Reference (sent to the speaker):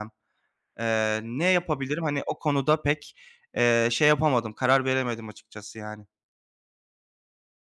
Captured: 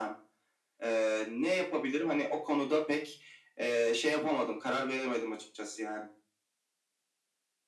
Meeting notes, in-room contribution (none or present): none